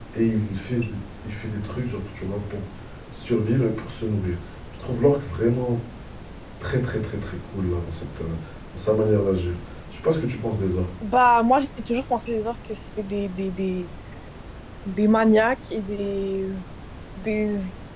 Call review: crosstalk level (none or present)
none